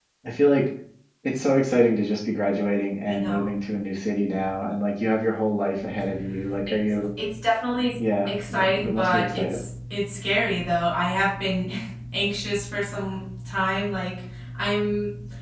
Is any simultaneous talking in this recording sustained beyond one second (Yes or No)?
Yes